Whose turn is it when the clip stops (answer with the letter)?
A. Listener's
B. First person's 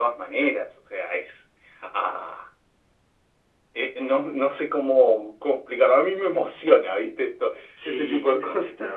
A